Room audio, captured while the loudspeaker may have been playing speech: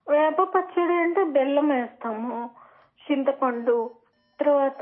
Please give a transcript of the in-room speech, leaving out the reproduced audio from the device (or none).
none